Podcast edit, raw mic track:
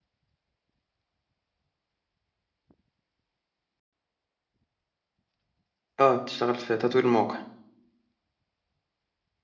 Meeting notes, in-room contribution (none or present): present